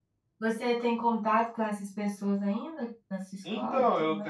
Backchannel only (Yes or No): No